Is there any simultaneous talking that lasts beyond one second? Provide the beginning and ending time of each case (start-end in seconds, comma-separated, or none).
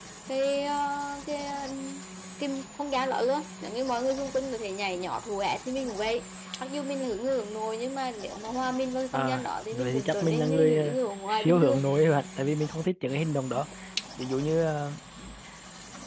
9.1-10.8